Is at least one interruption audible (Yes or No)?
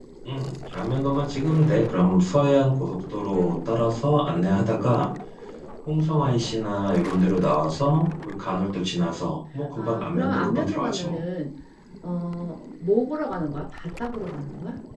Yes